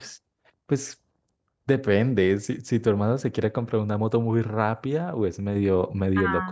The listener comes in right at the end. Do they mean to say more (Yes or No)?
No